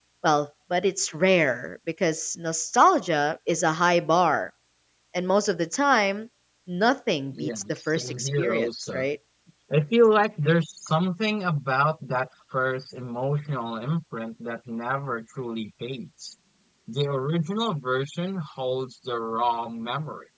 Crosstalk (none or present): present